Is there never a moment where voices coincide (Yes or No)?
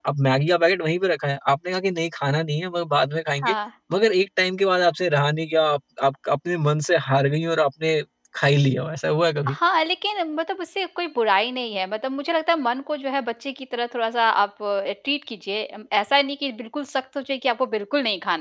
Yes